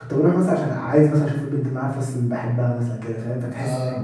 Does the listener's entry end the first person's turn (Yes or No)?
No